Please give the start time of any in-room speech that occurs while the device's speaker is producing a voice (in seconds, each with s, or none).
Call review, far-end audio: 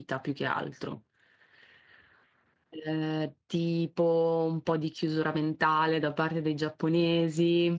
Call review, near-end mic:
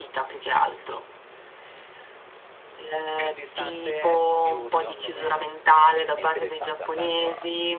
3.1 s